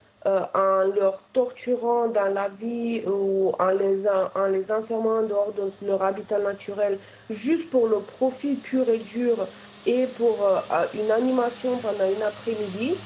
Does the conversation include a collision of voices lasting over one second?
No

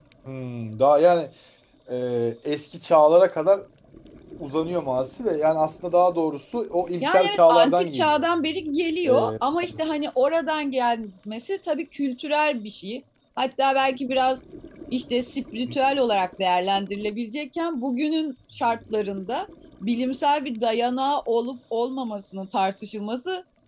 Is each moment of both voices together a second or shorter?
No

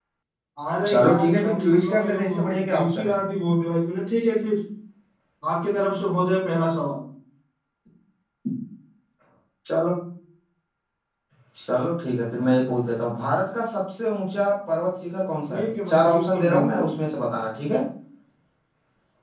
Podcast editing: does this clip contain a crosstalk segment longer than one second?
Yes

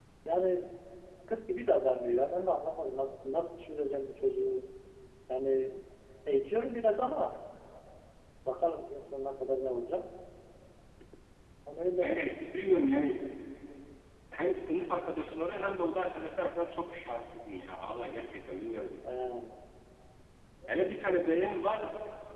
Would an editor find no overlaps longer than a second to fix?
Yes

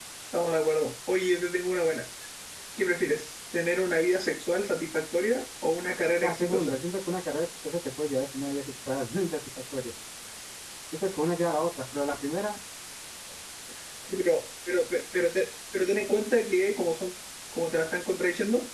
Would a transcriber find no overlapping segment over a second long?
Yes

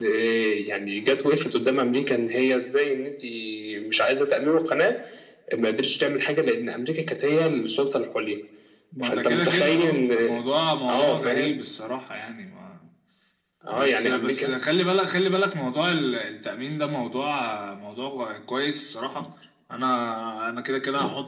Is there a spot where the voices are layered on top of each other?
Yes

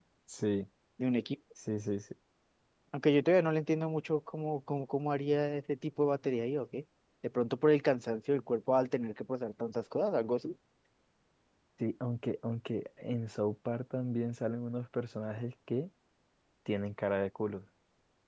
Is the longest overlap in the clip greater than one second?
No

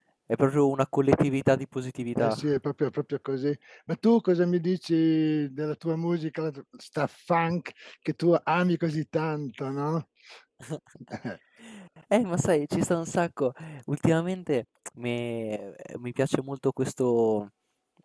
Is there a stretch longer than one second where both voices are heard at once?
No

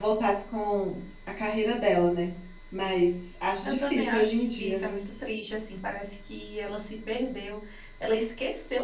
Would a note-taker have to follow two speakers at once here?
Yes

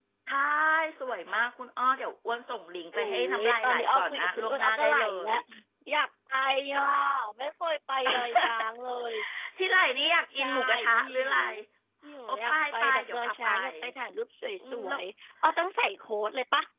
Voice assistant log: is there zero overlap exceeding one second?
No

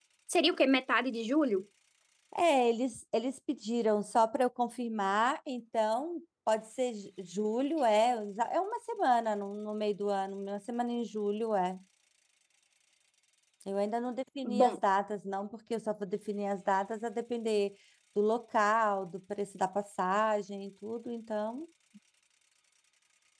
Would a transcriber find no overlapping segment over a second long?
Yes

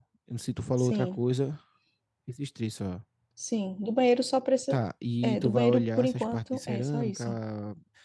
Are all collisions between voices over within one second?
No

